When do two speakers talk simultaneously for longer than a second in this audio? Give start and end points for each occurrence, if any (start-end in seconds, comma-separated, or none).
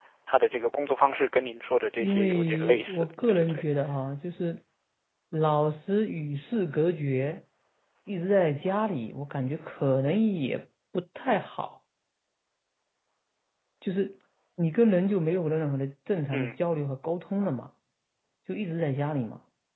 2.0-3.6